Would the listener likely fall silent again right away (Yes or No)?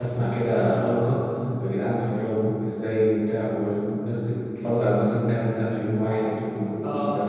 Yes